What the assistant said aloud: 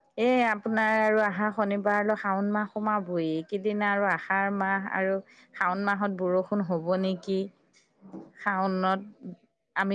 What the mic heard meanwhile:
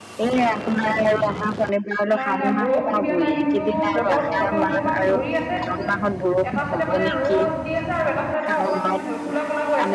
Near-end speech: present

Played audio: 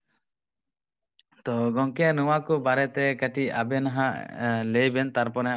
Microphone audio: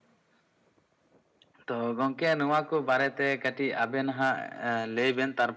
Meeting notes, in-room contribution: none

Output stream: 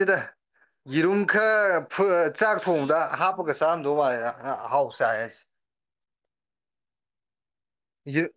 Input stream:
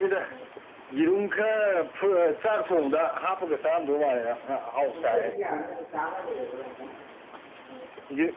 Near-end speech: present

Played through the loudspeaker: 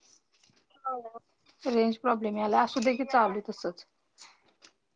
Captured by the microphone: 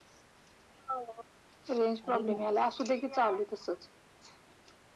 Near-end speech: present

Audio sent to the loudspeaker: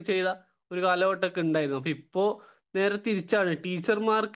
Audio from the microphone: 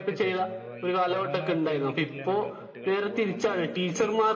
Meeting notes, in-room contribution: present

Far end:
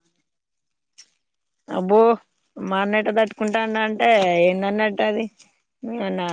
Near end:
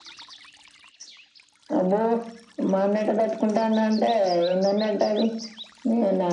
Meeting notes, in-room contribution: none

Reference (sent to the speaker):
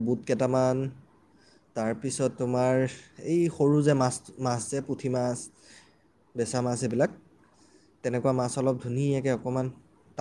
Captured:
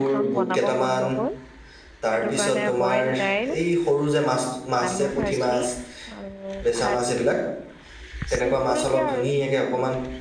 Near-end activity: present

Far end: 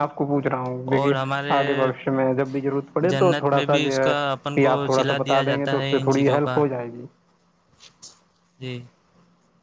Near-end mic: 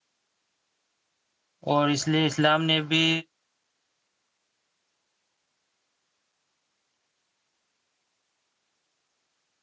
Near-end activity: present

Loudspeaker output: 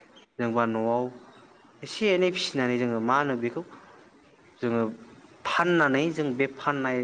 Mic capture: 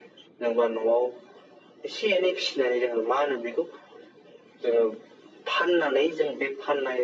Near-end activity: none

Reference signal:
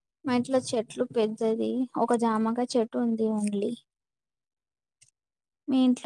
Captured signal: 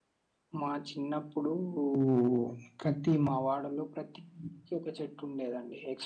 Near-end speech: present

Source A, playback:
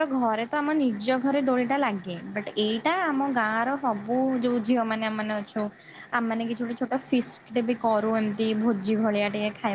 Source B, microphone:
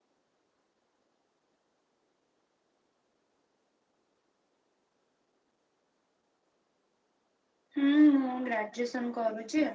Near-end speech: present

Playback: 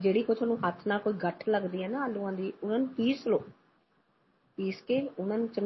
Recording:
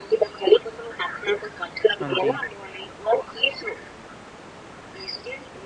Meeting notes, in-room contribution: present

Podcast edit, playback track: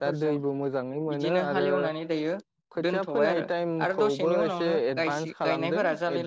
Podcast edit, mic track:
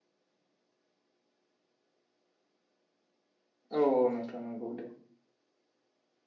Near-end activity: present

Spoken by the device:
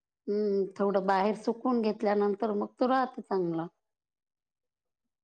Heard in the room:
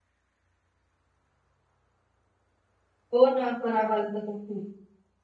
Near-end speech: present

